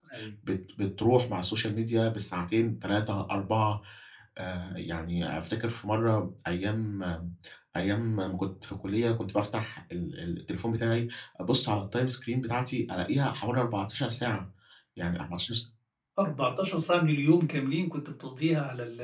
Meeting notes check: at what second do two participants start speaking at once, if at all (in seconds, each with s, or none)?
none